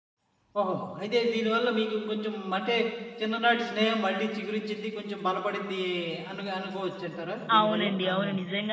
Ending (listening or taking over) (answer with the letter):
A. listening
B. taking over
B